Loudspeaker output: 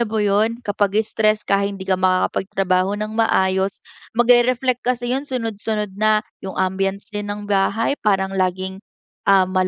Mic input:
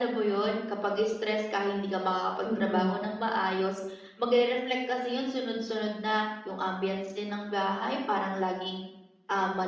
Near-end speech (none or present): present